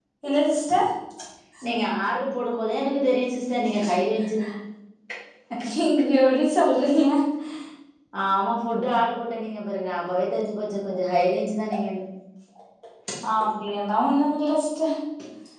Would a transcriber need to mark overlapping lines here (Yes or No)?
No